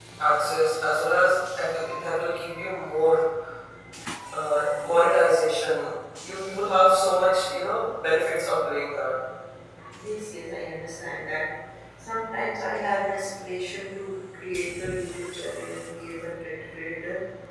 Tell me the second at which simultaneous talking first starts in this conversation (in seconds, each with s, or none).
none